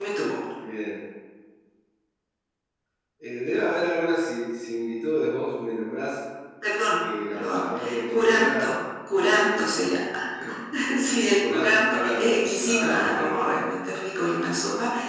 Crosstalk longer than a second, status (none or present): present